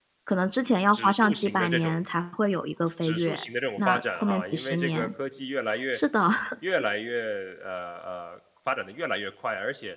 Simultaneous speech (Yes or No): Yes